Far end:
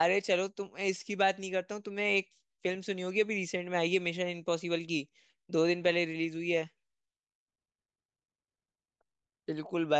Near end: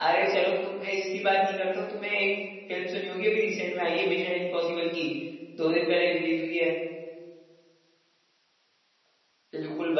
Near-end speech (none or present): none